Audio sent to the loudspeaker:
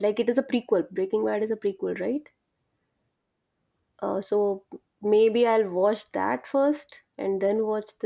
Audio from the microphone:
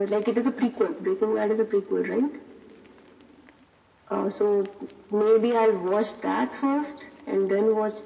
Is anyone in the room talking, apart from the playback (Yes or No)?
No